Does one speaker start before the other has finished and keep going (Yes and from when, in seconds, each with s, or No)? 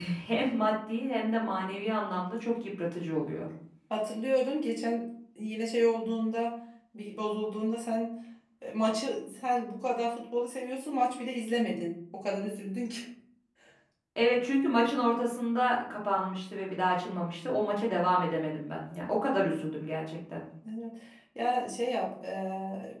No